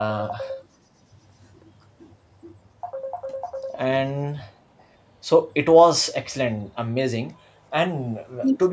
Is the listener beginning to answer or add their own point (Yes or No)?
No